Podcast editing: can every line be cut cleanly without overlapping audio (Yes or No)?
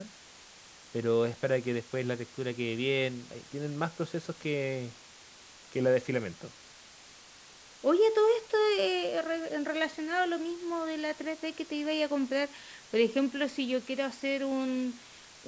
Yes